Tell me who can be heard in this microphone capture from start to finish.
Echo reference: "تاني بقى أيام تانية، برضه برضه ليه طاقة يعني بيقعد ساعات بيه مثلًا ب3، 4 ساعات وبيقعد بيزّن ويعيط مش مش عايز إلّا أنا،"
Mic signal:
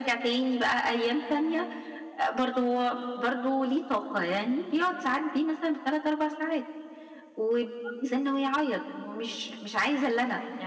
echo only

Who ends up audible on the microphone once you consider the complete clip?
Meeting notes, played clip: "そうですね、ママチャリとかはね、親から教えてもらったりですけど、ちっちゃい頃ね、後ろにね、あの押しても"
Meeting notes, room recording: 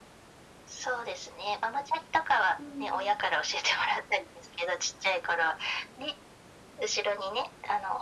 both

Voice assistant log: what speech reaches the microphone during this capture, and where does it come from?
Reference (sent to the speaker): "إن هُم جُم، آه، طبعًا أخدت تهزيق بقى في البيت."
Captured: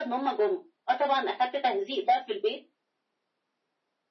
echo only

